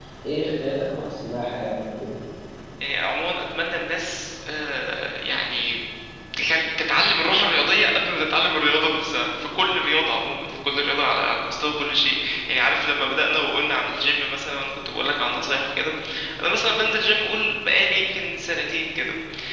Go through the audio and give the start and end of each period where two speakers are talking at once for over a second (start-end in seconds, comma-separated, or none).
none